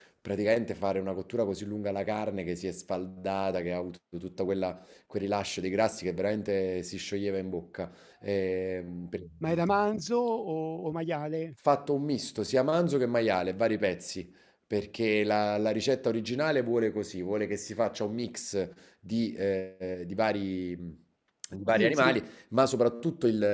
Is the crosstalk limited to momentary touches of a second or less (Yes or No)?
Yes